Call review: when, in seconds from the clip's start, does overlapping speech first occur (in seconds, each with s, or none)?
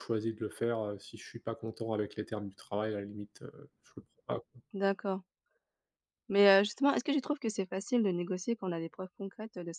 none